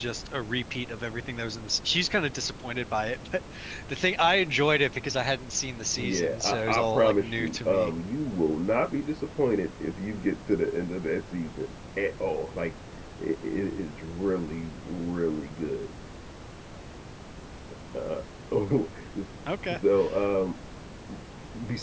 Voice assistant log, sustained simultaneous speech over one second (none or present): present